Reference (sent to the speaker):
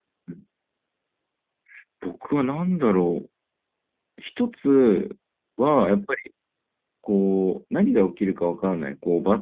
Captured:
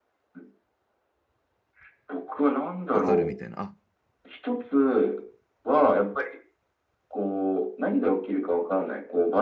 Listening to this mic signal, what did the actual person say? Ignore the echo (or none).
わかるみたいな。あ、